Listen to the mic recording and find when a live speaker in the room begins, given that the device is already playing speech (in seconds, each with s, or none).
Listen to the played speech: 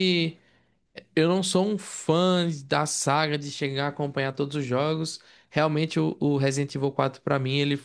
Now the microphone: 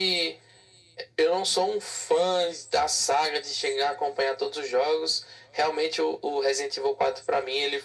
none